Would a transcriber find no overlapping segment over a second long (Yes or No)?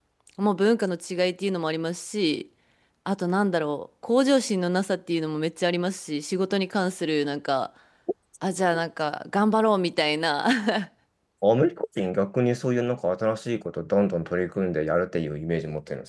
Yes